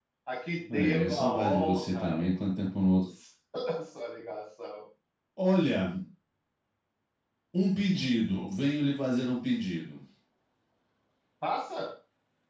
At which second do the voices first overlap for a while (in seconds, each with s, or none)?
0.7 s